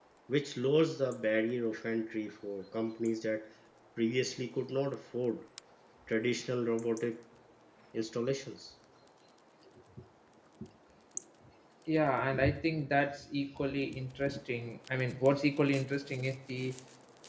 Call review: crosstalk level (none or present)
none